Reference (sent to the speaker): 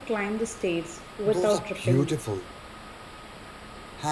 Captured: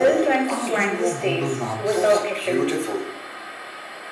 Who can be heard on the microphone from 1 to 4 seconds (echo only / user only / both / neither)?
both